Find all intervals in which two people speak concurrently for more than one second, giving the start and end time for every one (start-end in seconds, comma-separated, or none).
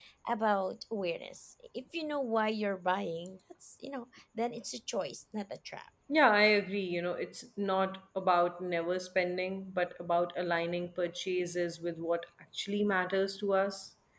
none